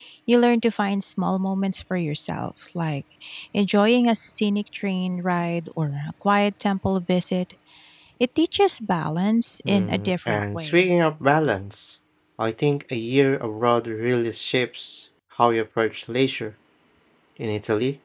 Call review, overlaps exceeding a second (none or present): present